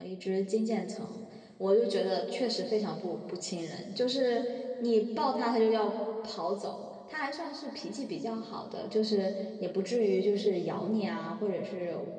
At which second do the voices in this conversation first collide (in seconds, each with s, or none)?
none